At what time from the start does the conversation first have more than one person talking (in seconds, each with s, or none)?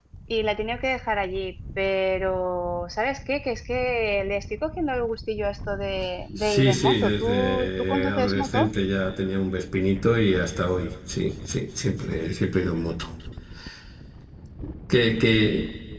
6.4 s